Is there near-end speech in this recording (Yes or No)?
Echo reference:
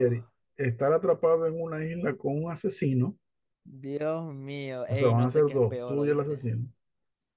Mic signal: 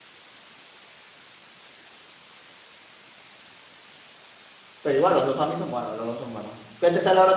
Yes